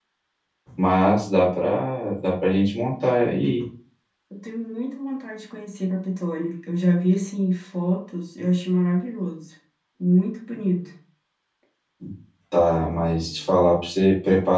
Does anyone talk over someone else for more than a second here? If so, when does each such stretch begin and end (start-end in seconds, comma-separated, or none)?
none